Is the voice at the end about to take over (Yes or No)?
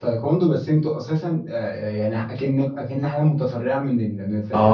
Yes